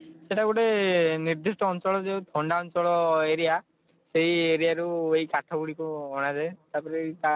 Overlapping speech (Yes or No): No